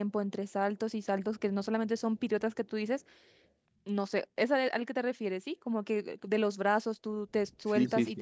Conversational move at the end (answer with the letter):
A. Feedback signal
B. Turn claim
B